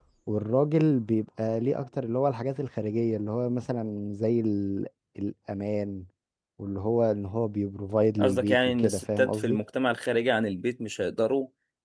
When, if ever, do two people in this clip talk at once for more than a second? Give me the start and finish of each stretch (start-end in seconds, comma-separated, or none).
8.2-9.6